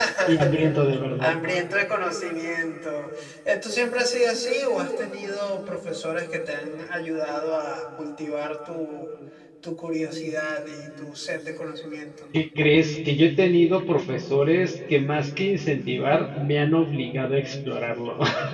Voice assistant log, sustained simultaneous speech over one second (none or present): none